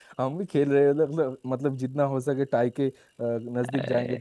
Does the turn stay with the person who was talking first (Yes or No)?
No